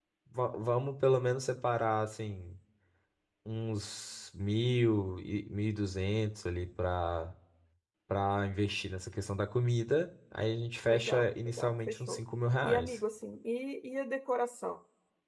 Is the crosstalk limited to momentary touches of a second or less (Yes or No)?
No